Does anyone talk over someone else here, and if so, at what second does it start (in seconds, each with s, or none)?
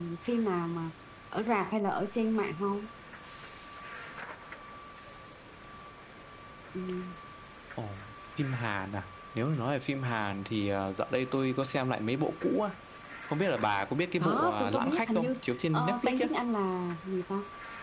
14.2 s